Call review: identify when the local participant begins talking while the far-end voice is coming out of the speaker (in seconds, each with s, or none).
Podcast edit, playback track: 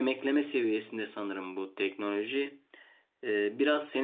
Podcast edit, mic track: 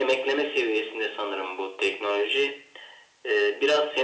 none